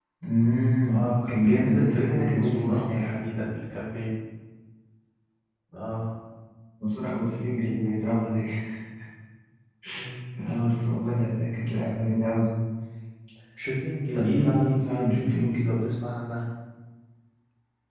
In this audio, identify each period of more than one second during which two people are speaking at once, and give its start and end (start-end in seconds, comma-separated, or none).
0.9-3.1, 14.1-15.6